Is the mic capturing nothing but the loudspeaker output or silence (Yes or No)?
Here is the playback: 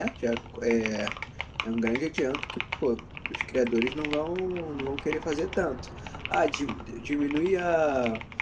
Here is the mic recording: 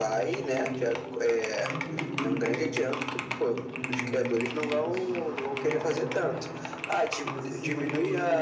No